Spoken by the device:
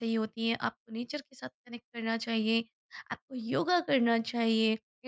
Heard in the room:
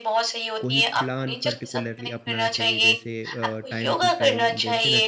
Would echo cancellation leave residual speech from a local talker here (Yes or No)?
Yes